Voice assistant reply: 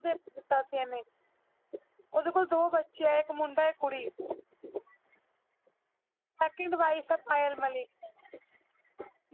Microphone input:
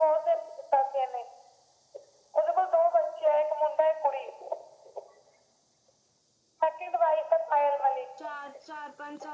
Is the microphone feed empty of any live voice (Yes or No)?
No